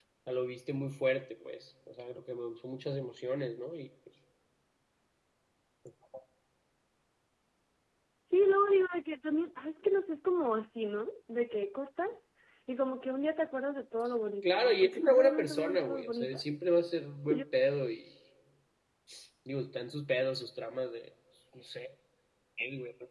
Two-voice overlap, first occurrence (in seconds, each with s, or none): 14.4 s